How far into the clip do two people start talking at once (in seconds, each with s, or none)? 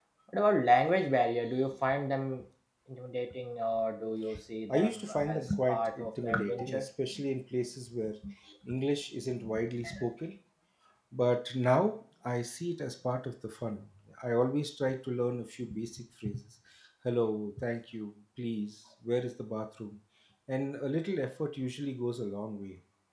4.7 s